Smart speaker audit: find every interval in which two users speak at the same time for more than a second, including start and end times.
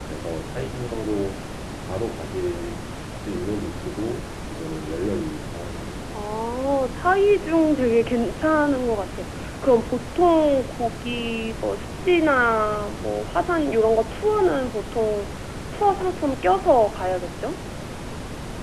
none

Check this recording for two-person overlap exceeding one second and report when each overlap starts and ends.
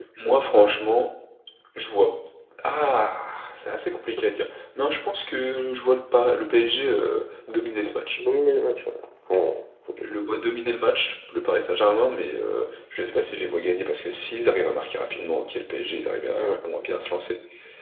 none

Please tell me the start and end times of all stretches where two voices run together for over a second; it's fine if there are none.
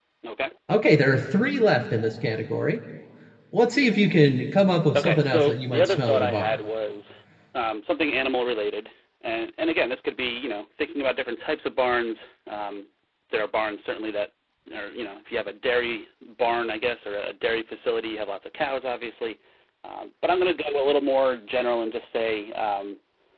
4.9-6.6

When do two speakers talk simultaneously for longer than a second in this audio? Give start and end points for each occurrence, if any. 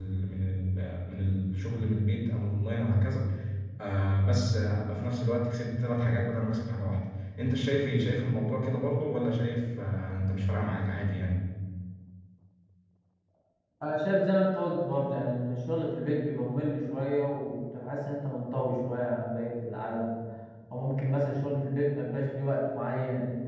none

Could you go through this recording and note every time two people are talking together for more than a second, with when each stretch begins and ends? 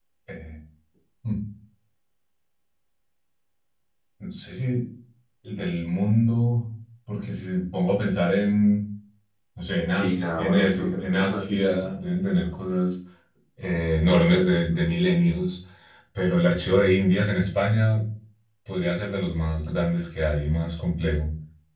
10.0-11.8

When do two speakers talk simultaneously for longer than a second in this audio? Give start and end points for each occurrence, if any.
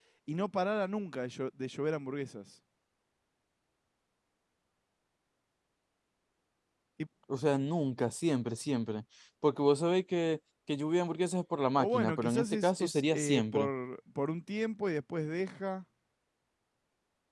11.8-13.7

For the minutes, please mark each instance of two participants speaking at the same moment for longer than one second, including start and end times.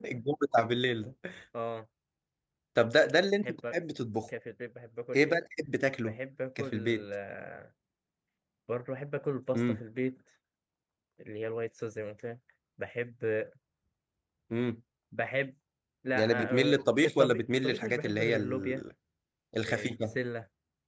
16.1-18.8

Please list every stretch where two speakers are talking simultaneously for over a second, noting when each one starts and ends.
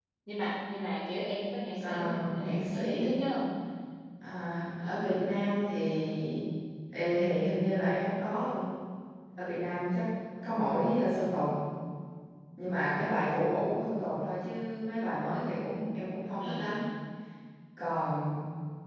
1.8-3.2

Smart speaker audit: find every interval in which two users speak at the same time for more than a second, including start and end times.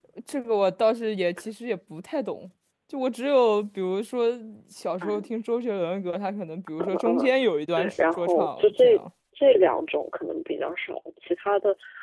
7.8-9.0

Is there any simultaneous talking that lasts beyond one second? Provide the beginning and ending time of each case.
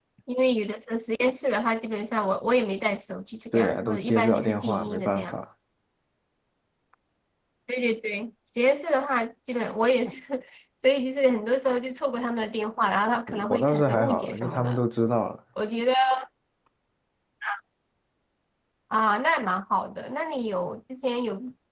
3.5-5.4, 13.3-14.8

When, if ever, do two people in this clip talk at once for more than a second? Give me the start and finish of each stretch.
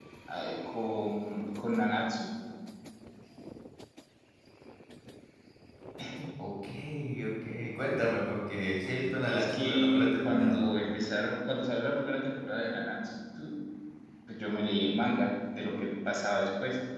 9.2-10.6

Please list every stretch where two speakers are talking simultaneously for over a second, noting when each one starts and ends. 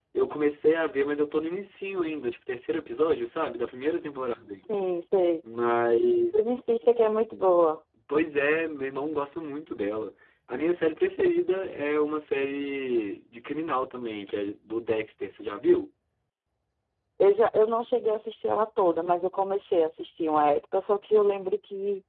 none

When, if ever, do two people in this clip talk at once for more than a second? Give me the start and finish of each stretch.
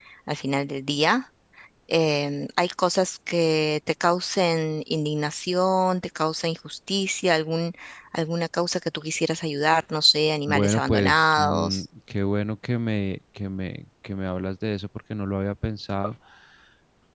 10.5-11.8

